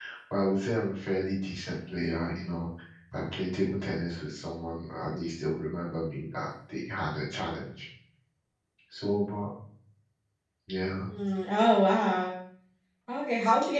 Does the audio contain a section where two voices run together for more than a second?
No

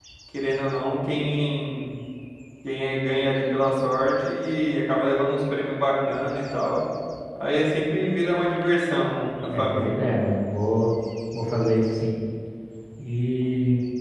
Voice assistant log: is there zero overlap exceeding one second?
Yes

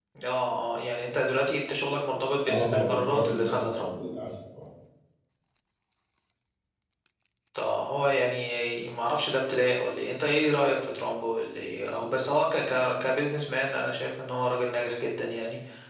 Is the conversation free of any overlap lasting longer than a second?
No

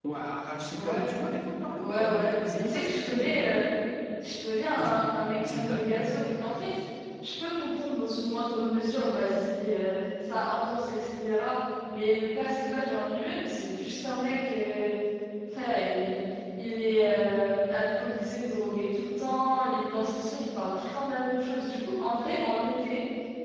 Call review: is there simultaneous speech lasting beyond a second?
Yes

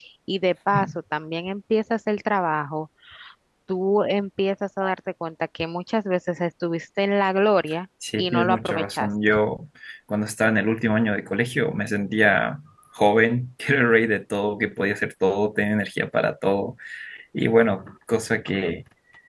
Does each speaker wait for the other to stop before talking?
No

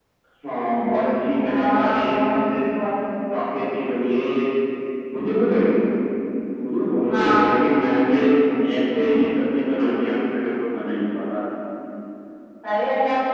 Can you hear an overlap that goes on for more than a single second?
Yes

